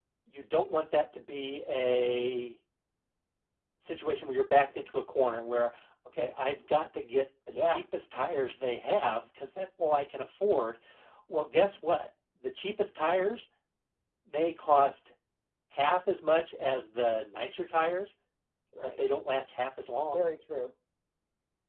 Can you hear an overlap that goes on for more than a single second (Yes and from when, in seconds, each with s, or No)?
No